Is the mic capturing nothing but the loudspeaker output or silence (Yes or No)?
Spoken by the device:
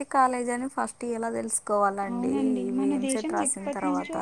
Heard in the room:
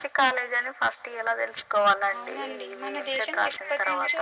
Yes